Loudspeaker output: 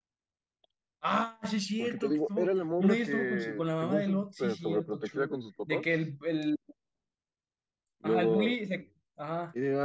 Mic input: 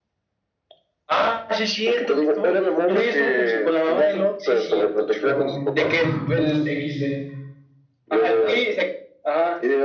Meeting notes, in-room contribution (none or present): present